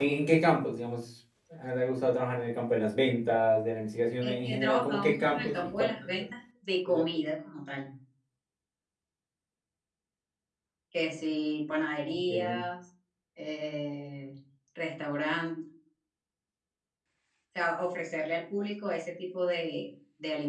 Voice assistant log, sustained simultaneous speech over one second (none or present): present